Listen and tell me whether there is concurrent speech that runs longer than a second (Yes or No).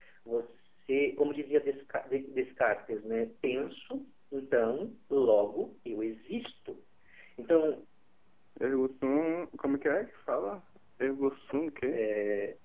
No